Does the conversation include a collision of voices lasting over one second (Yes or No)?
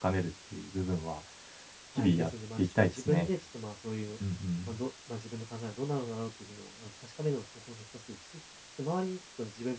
Yes